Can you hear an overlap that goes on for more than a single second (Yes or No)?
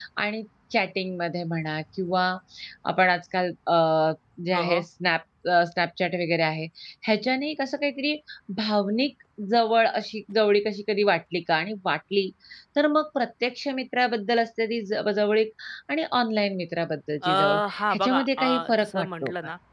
Yes